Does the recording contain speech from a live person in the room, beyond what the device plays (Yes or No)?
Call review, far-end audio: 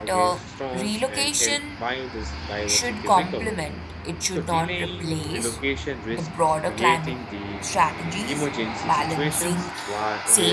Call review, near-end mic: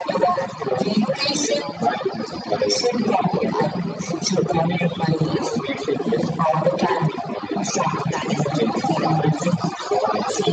Yes